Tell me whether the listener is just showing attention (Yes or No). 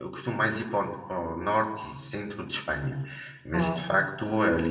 Yes